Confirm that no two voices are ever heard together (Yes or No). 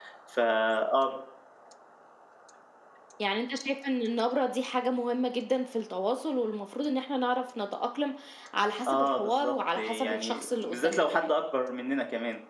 No